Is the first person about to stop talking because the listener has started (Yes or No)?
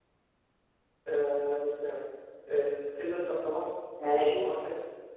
No